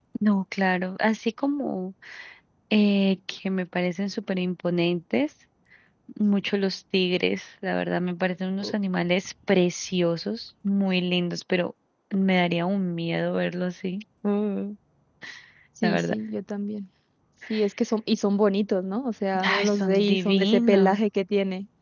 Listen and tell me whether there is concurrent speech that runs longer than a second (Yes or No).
Yes